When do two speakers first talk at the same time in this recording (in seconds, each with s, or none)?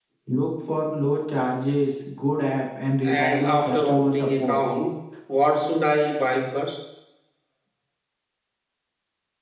3.0 s